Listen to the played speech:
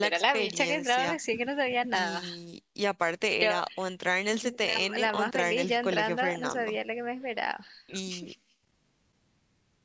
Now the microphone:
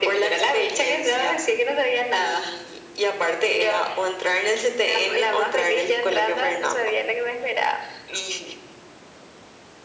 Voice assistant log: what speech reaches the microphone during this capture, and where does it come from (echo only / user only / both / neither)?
echo only